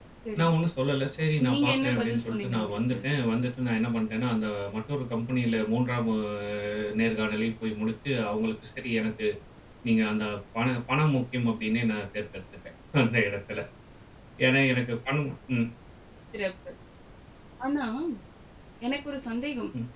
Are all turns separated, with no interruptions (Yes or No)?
No